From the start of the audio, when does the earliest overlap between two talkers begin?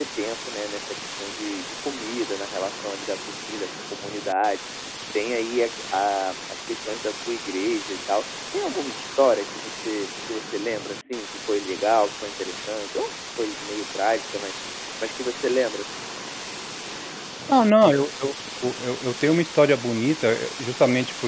none

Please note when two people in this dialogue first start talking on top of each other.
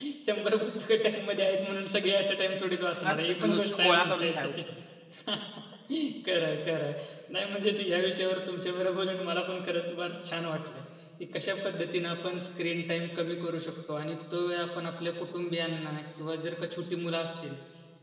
3 s

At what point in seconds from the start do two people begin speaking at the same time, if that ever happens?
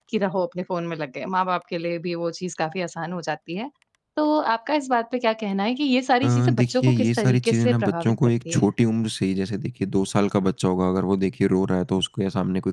6 s

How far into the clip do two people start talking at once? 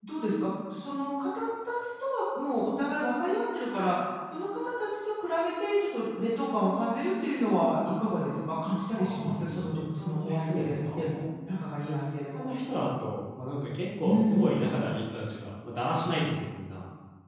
9 s

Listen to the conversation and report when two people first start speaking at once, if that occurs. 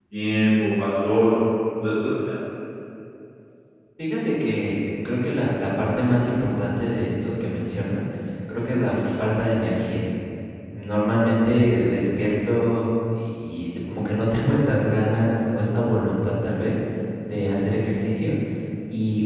none

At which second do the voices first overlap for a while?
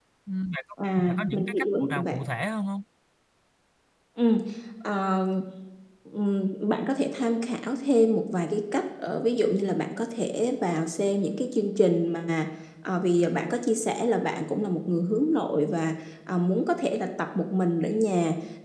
1 s

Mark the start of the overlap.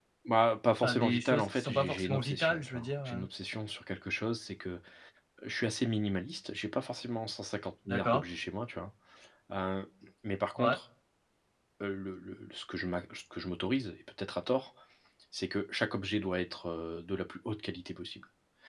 1 s

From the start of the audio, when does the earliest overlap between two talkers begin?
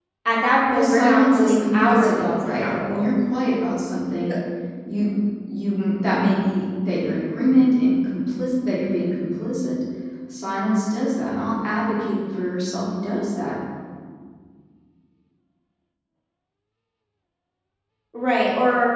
1 s

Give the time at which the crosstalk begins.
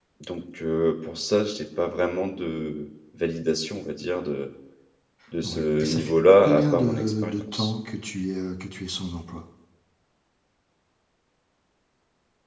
5 s

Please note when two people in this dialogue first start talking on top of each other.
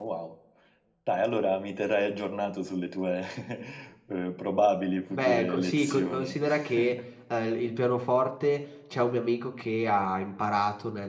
5 s

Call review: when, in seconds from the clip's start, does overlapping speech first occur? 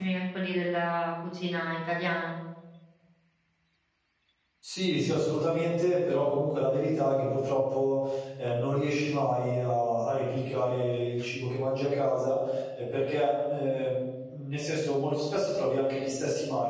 none

